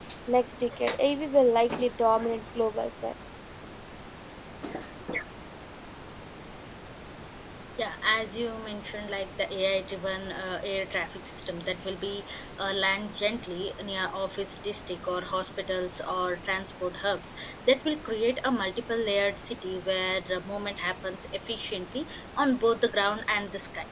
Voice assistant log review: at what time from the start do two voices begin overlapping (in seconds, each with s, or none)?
none